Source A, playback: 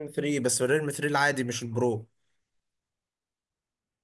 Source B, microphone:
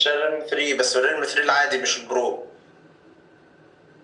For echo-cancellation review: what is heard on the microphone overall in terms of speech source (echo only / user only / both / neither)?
echo only